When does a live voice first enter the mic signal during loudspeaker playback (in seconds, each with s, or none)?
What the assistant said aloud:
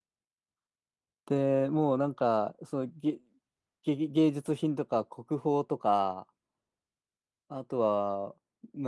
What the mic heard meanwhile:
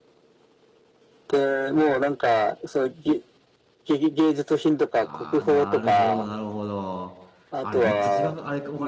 5.0 s